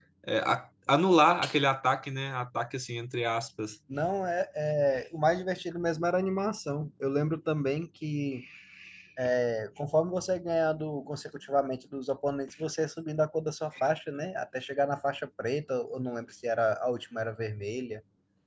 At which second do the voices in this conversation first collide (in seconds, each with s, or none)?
none